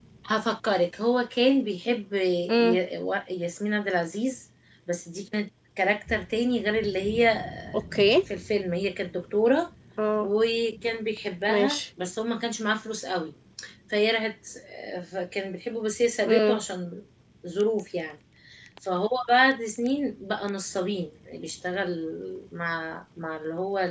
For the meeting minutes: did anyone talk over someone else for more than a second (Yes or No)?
No